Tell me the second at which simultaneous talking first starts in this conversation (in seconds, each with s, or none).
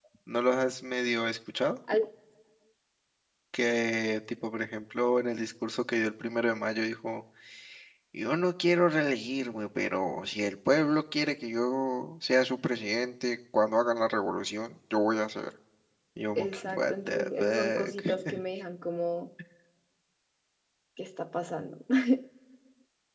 16.4 s